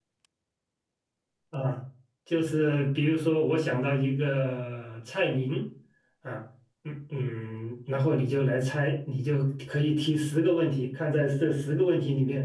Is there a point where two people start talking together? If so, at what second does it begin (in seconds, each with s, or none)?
none